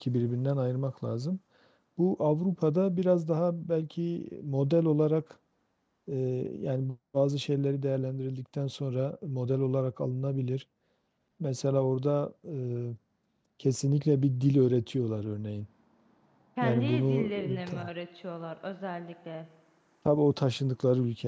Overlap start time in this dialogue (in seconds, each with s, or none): 16.6 s